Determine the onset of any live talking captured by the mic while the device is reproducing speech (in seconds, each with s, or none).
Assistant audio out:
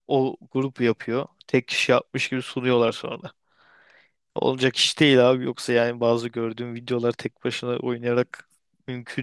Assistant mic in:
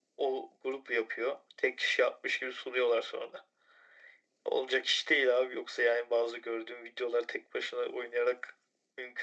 none